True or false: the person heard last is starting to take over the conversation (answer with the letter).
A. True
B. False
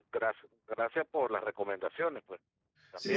A